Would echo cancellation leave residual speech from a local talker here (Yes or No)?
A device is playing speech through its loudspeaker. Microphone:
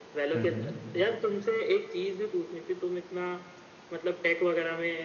Yes